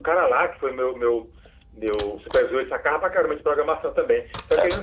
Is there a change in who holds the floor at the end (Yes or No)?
No